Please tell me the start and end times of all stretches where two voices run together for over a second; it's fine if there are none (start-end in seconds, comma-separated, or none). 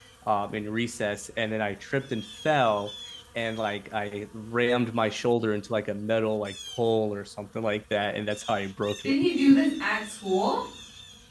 none